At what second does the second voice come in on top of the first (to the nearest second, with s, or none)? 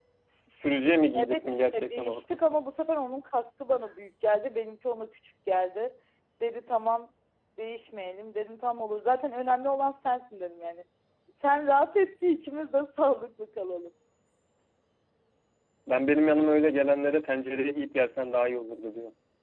1 s